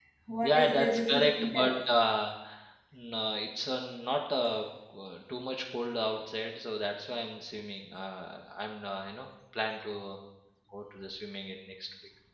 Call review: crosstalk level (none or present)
present